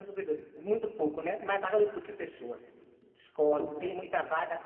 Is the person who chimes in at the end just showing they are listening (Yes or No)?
Yes